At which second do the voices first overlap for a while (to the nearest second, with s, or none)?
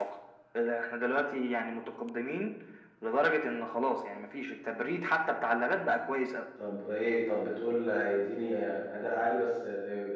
none